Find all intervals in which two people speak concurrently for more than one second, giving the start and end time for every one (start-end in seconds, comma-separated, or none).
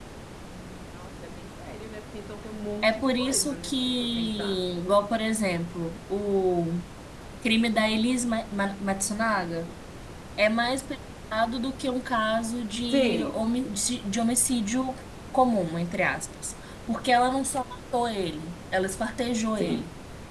2.8-4.6